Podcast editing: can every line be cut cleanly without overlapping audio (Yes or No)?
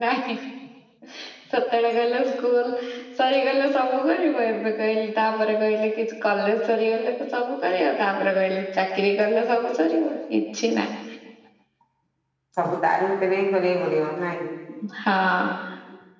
Yes